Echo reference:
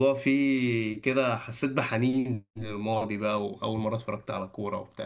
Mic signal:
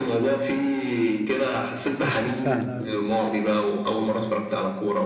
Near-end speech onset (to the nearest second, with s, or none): 2 s